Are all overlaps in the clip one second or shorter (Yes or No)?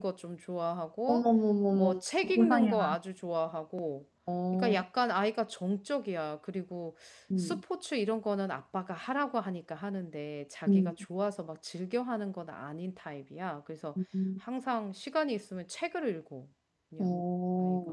No